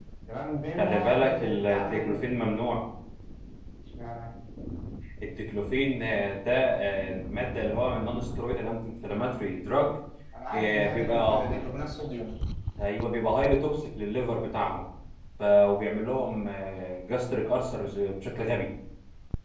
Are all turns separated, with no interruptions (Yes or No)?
No